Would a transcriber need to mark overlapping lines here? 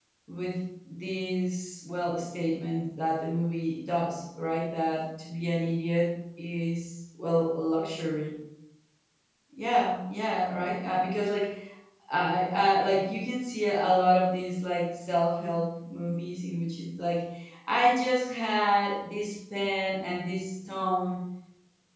No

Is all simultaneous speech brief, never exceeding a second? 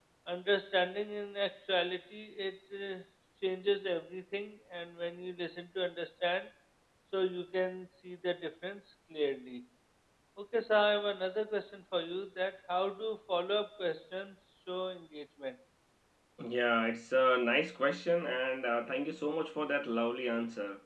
Yes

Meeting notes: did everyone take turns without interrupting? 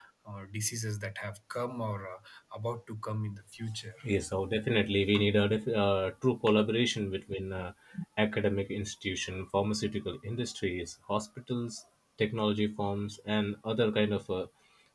Yes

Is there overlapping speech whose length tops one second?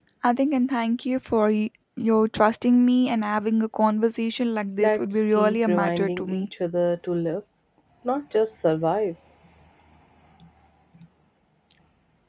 Yes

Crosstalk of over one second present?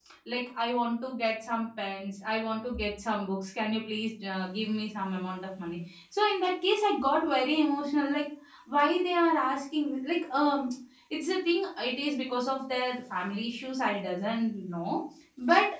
No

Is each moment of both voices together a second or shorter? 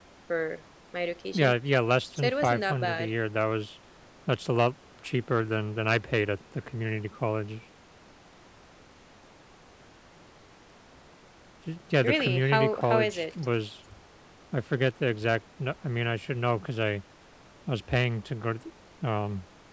No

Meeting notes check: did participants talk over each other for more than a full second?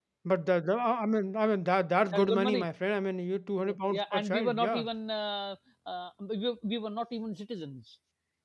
Yes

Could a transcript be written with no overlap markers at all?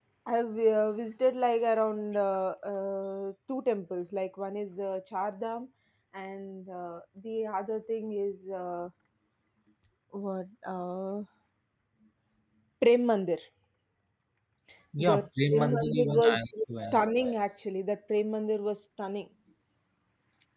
No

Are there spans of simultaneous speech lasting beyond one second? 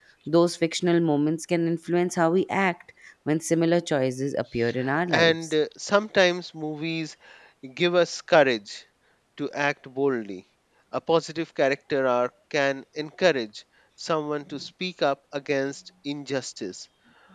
No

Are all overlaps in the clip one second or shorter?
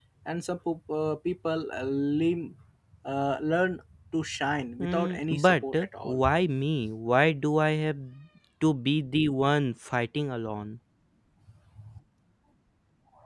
No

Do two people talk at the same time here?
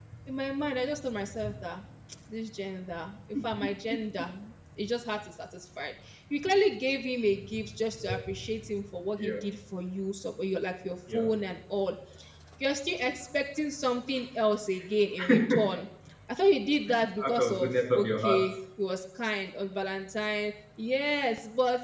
Yes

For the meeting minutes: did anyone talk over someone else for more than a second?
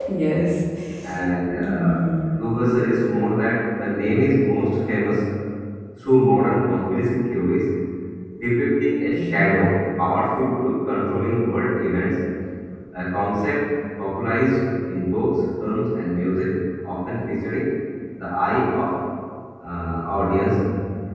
No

